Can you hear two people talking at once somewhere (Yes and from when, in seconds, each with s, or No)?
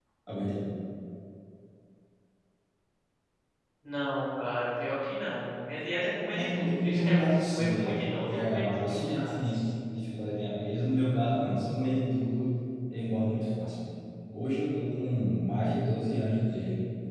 Yes, from 6.3 s